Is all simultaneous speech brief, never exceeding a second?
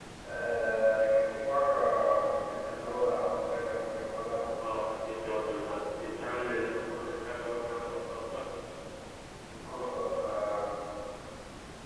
Yes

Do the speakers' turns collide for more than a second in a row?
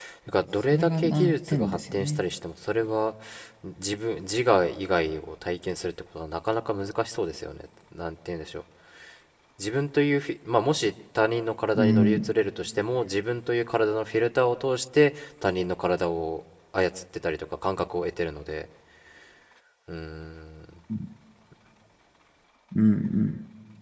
Yes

